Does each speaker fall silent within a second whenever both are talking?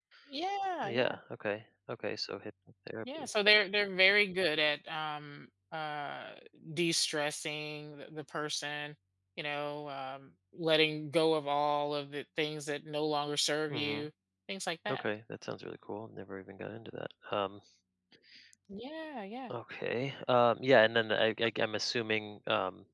Yes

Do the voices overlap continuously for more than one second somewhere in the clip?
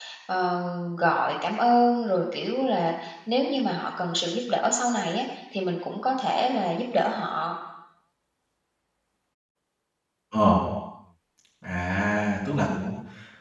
No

